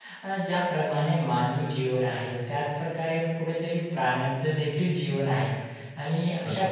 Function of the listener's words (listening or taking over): listening